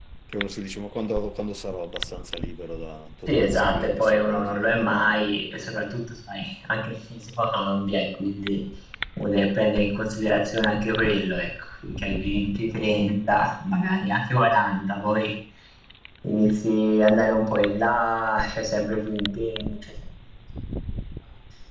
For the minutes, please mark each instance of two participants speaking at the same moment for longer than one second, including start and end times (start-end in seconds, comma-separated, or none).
3.3-5.2